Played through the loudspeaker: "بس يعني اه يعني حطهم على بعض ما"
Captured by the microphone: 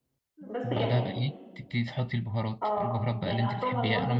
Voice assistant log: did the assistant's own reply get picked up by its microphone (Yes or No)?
Yes